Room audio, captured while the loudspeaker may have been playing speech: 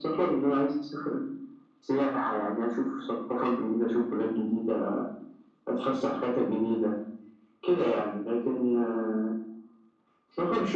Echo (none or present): present